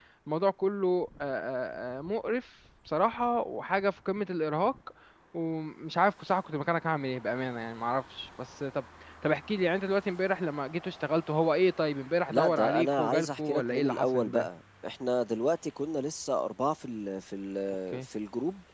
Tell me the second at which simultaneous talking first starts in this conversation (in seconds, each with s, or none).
12.3 s